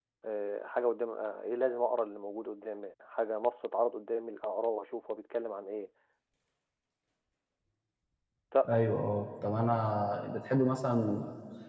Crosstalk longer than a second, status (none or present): none